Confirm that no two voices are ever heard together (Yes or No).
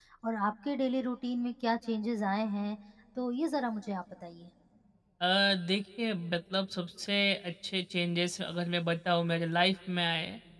Yes